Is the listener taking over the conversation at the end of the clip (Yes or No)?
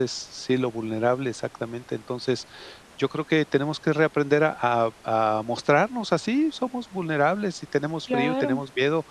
No